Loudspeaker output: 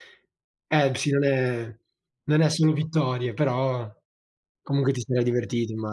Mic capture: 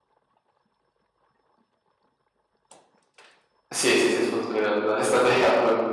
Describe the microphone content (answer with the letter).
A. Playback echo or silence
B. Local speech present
B